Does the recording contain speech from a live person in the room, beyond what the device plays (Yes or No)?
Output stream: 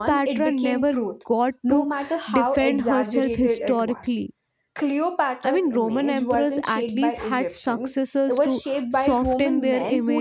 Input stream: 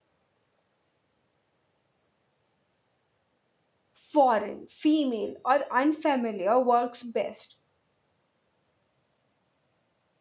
Yes